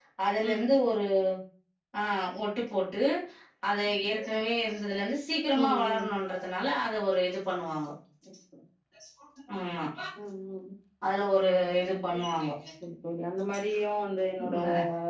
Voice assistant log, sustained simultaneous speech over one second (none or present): none